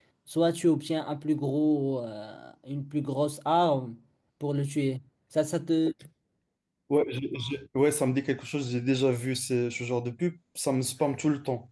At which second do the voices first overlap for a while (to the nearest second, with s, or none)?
none